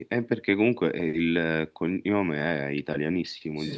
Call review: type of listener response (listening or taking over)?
taking over